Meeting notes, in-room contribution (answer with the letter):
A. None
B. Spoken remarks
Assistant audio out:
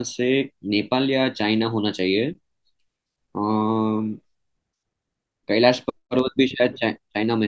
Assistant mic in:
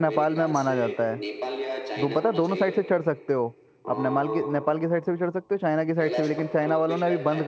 B